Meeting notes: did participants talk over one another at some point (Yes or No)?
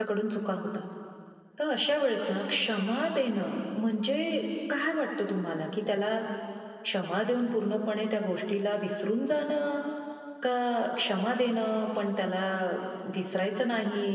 No